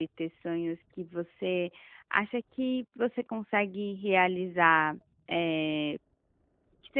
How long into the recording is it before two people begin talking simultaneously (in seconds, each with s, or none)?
none